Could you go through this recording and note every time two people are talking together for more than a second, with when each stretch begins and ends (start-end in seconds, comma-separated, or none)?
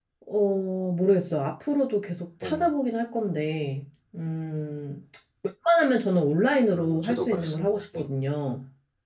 6.7-8.0